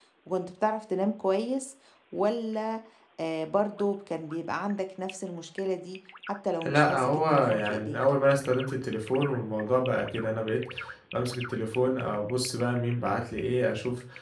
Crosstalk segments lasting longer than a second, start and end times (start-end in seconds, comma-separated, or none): 6.7-8.0